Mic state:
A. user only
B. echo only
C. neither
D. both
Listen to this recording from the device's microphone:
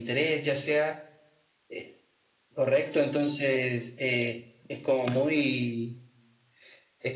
B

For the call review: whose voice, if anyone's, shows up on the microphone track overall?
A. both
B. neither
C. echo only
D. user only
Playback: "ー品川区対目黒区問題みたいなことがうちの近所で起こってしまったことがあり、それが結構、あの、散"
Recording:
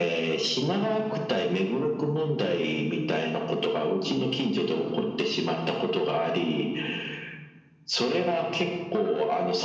C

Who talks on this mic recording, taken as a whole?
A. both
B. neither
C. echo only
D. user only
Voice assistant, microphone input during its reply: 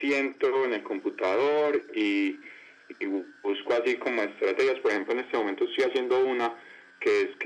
C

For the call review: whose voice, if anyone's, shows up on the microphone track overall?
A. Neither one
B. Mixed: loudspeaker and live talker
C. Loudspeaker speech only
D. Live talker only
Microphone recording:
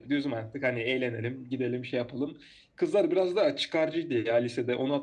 C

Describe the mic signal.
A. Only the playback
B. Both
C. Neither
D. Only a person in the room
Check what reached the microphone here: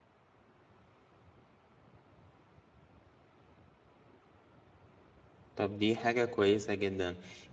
D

